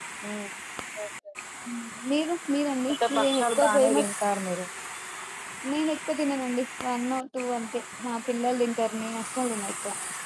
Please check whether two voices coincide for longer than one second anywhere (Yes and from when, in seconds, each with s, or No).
Yes, from 2.9 s